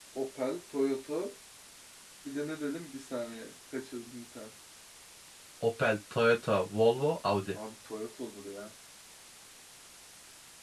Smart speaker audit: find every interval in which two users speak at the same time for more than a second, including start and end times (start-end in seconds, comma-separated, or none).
none